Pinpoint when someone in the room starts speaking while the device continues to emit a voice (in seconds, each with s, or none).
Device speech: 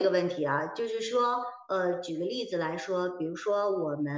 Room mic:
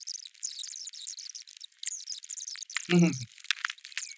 2.9 s